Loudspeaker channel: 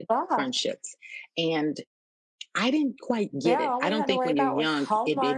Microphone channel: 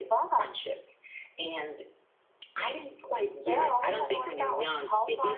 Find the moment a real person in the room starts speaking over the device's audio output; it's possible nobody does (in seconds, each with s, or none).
none